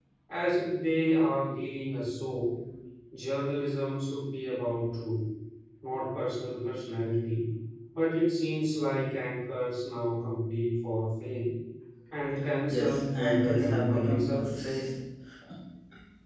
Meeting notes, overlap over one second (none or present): present